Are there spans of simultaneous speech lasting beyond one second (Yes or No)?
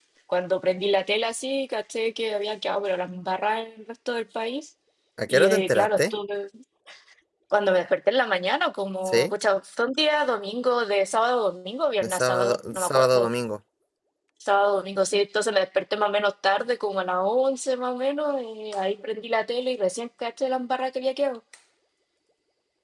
Yes